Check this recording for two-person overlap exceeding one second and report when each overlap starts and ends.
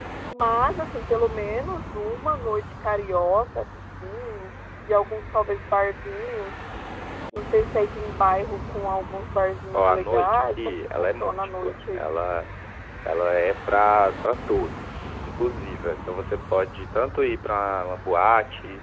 9.7-12.0

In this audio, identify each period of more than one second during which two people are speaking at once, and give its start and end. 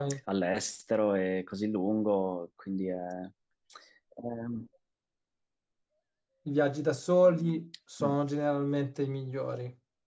none

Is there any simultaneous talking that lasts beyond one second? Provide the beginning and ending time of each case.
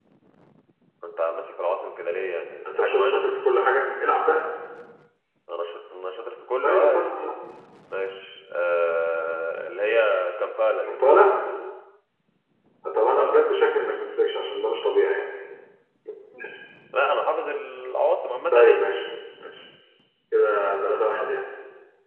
none

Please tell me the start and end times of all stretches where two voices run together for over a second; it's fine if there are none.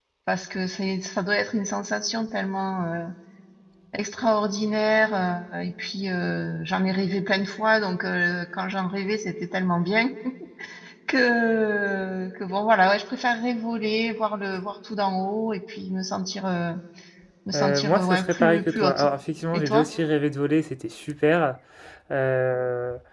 17.5-19.1

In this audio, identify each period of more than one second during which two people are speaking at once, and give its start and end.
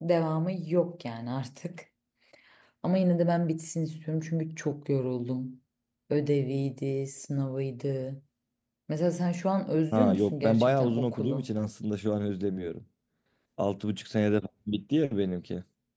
9.9-11.5

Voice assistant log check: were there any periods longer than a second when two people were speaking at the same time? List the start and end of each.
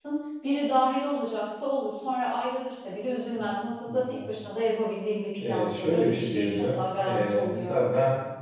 5.4-7.8

